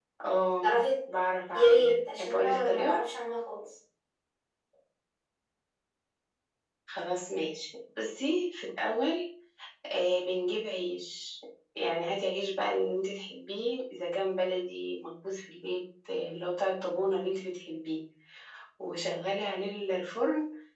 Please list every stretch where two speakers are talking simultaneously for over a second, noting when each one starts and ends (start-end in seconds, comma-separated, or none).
1.5-3.0